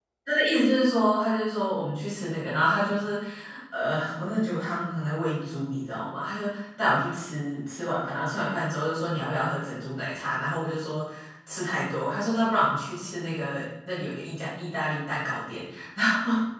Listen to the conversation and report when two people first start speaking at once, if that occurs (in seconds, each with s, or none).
none